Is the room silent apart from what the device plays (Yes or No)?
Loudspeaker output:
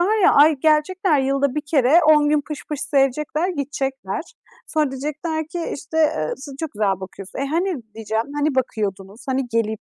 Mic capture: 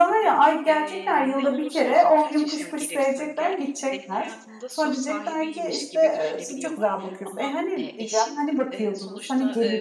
No